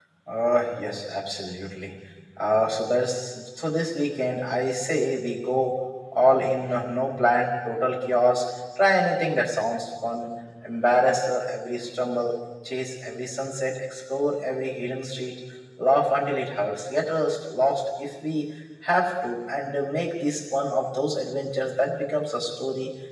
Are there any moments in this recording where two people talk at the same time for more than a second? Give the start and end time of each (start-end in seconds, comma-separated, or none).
none